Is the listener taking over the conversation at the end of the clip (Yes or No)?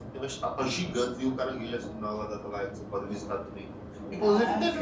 No